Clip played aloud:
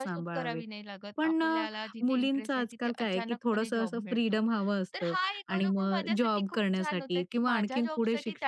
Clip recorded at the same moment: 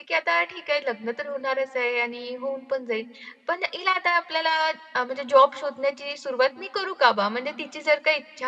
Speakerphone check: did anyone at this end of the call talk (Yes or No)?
Yes